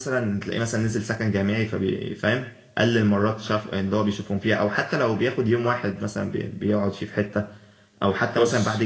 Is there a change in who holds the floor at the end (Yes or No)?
No